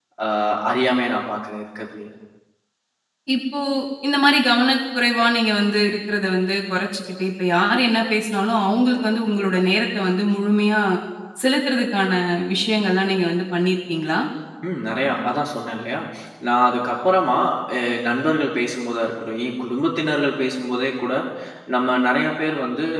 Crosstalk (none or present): none